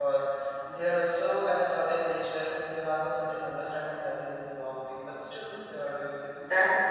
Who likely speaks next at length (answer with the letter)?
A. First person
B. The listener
B